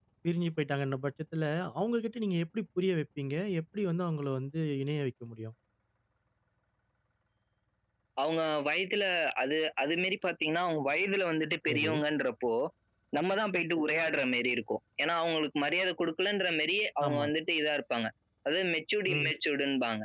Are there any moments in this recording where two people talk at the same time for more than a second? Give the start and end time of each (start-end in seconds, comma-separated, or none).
none